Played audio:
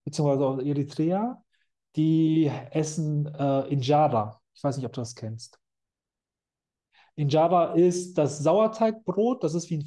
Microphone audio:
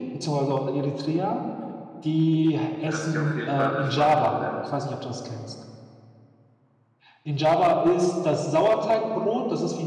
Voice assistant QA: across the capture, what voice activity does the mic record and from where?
both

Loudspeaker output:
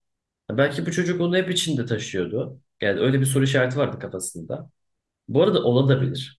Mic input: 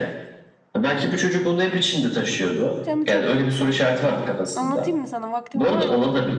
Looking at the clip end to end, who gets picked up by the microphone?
both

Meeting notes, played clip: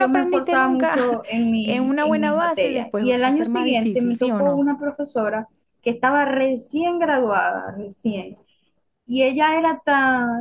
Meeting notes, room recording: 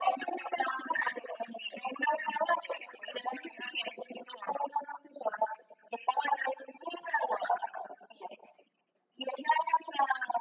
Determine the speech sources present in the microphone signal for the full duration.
echo only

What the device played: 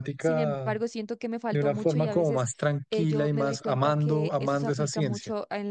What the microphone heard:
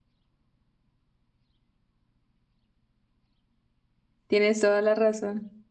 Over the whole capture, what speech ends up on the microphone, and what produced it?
user only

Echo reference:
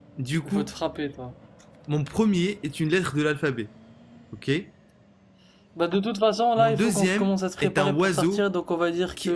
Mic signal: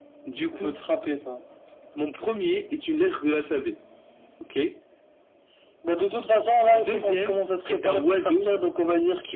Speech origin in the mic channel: echo only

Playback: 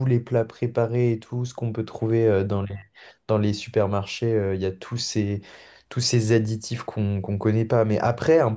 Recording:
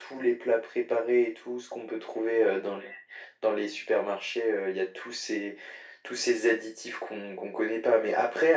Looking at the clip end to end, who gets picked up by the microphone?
echo only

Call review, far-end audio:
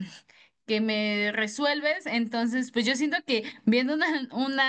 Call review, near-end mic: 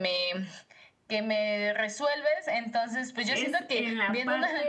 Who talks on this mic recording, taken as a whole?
both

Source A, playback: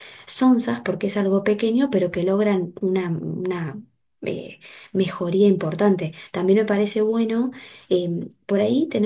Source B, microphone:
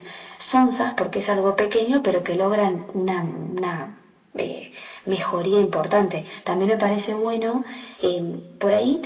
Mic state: echo only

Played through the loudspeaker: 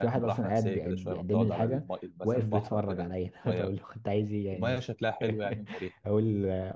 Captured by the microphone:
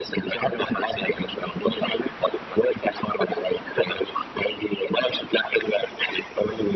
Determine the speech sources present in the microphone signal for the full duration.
echo only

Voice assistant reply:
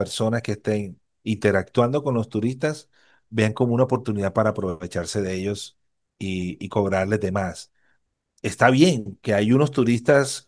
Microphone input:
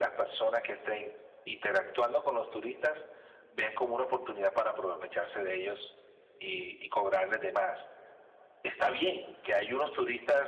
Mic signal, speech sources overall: echo only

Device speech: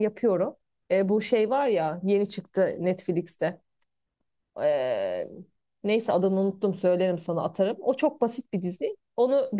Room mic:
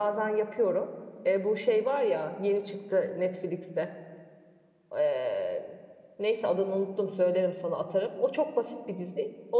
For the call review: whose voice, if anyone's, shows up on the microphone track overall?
echo only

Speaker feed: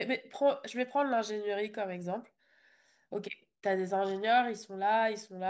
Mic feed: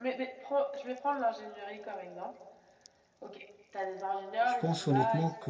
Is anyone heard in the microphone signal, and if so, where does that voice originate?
both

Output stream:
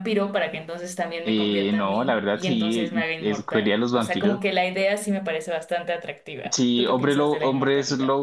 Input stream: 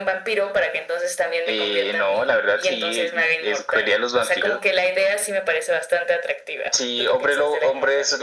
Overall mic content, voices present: echo only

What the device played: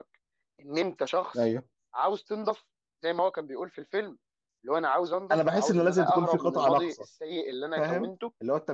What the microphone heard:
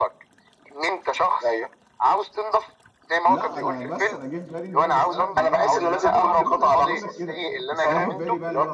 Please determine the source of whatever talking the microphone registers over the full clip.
both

